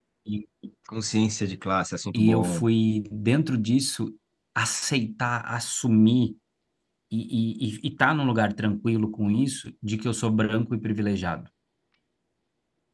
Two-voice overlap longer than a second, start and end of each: none

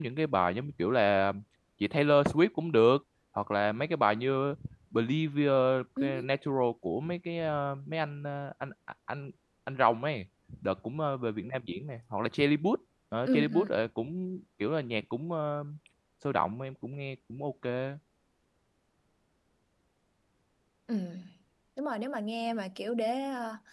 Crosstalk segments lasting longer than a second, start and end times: none

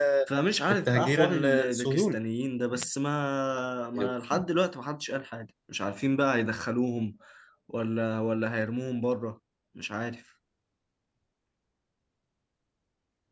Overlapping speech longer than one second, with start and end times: 0.7-2.2

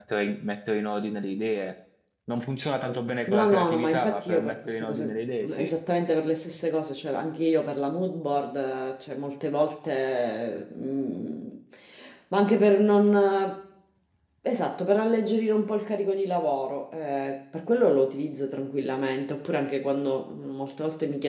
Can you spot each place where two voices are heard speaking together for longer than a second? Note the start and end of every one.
3.3-5.1

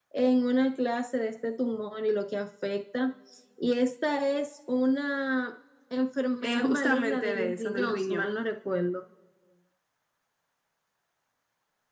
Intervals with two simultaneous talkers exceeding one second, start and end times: 6.4-8.3

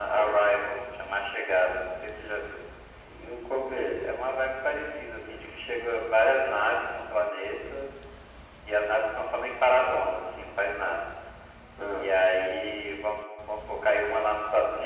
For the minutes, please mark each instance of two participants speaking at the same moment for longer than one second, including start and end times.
none

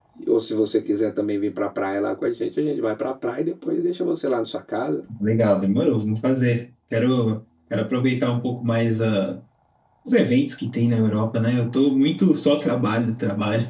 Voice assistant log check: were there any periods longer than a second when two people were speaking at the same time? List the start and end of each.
none

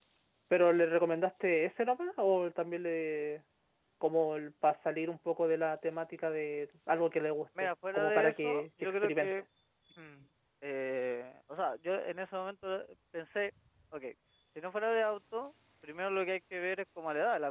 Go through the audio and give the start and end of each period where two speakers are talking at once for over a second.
7.6-9.3

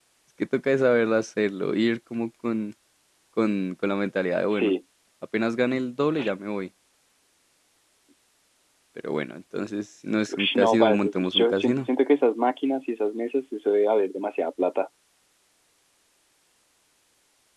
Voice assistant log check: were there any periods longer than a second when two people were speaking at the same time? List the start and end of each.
10.3-11.9

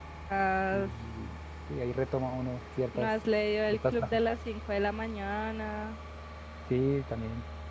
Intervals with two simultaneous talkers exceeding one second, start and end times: none

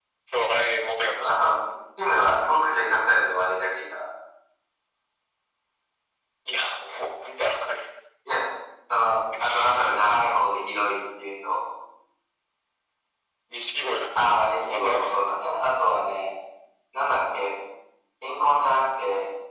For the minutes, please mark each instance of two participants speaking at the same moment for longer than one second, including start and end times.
14.2-15.5

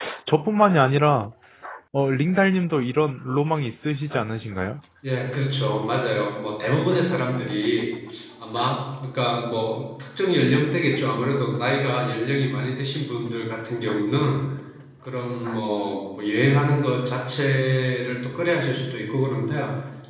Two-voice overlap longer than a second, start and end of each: none

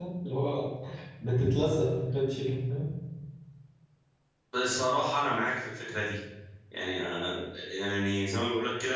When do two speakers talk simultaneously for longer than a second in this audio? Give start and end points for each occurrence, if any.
none

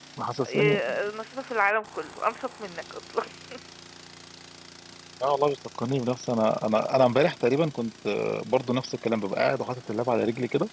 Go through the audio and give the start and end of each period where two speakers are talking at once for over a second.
none

